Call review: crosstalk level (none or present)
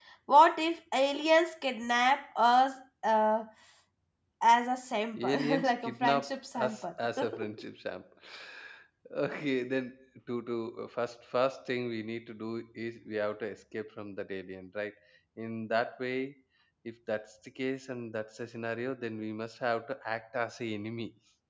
present